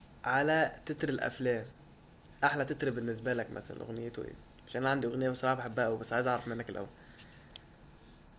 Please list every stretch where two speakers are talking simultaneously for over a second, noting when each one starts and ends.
none

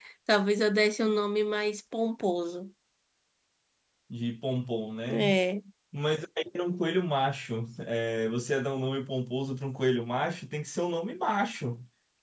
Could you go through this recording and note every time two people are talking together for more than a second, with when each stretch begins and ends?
none

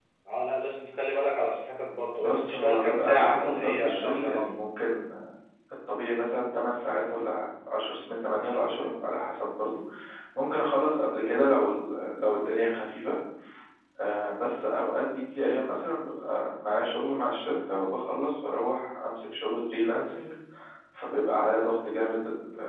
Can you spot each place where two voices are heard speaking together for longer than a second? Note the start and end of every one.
2.2-4.5

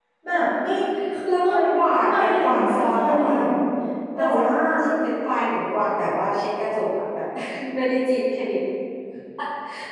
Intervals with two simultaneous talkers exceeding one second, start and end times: 2.1-3.3

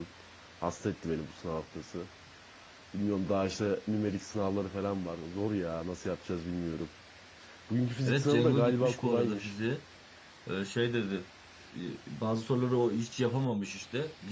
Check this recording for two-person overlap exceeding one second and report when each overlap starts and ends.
8.1-9.5

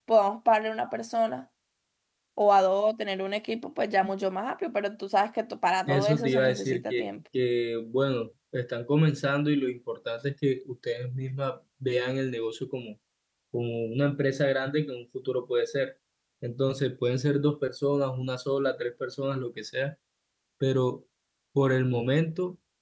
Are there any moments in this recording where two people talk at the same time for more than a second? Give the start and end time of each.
5.9-7.1

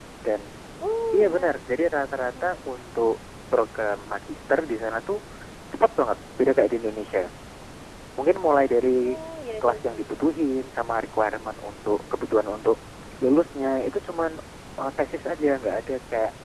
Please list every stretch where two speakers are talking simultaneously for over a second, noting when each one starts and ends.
none

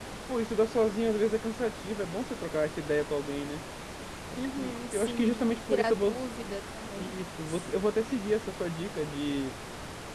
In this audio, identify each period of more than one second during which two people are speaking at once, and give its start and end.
4.4-6.2

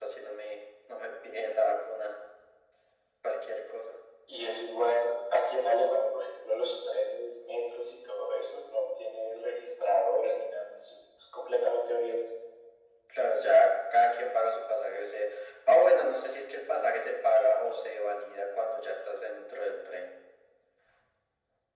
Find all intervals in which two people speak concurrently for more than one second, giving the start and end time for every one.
none

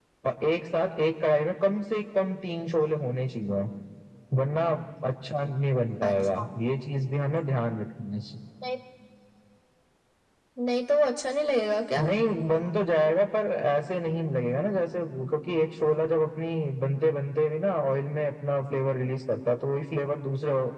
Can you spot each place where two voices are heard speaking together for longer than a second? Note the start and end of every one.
none

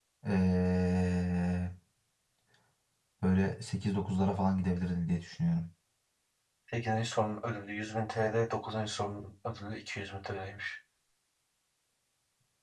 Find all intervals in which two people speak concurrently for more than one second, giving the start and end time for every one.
none

